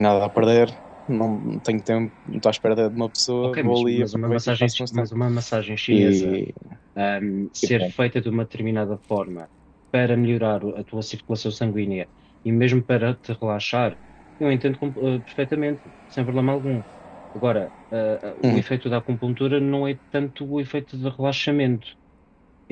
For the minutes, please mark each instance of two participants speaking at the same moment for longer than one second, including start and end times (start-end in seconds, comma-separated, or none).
3.4-5.1